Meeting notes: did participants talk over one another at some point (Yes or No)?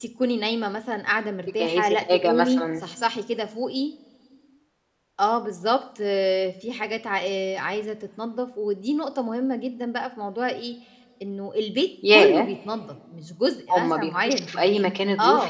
Yes